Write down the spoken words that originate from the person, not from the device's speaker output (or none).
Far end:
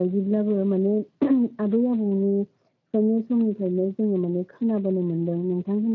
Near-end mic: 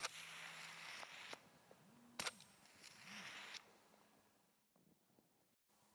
none